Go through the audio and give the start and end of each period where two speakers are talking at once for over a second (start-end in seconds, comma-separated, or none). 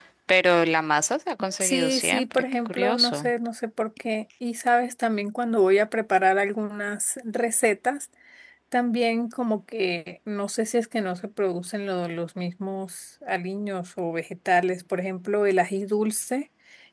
1.6-3.3